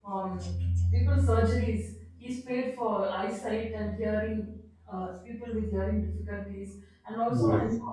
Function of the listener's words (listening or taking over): listening